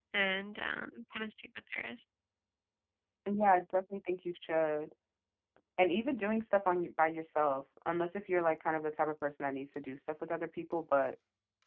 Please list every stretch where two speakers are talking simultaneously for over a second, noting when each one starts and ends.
none

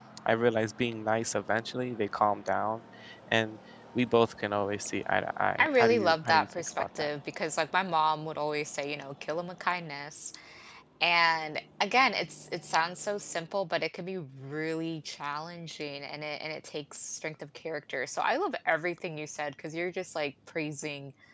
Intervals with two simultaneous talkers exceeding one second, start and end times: 5.6-7.1

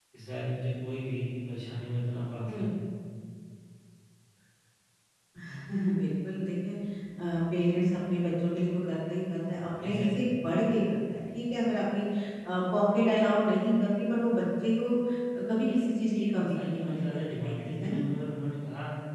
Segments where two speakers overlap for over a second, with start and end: 16.2-18.0

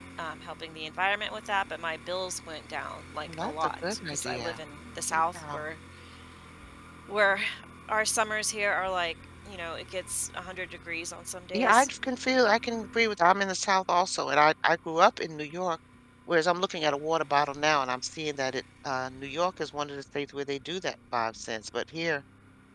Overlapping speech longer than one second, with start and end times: 3.3-4.6

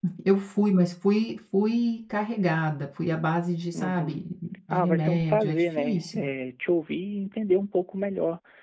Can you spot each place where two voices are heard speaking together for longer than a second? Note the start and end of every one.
4.7-6.3

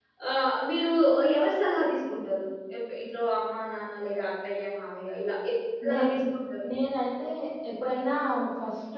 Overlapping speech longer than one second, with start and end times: none

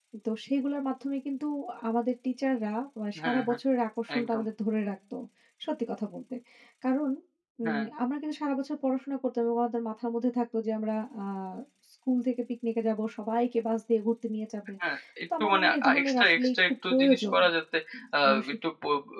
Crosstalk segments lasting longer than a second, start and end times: 15.4-17.4

